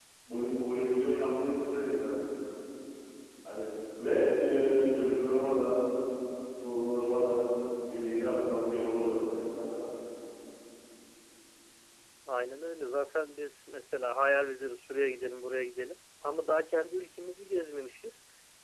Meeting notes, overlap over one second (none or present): none